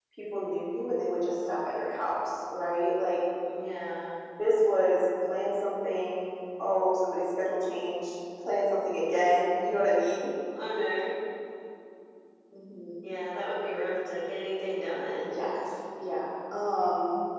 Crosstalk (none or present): none